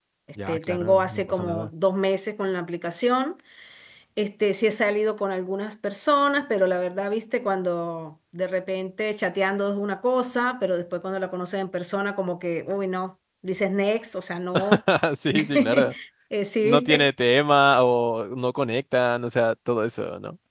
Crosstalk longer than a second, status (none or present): present